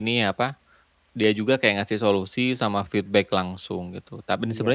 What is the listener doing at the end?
listening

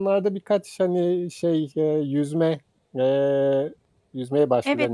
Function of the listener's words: taking over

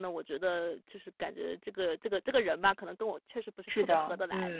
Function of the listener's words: taking over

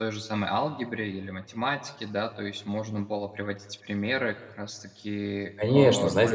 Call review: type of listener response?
taking over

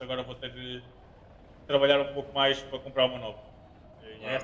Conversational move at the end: listening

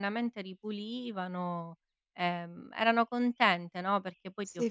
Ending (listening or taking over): taking over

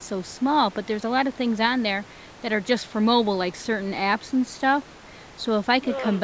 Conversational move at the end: listening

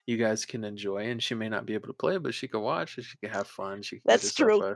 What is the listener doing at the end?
listening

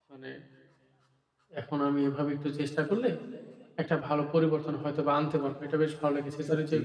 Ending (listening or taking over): listening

